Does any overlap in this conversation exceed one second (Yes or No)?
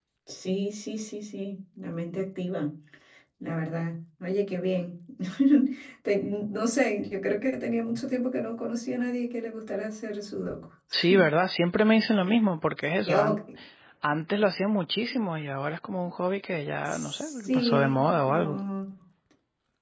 Yes